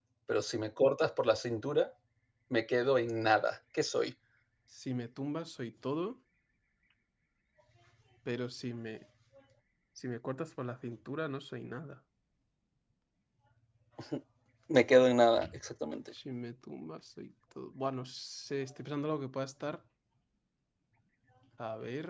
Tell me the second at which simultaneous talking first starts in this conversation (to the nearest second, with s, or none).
none